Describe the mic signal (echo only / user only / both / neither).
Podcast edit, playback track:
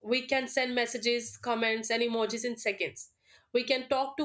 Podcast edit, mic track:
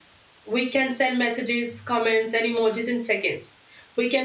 echo only